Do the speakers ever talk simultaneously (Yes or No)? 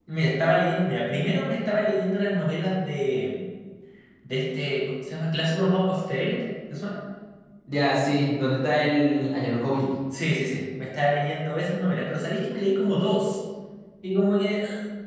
No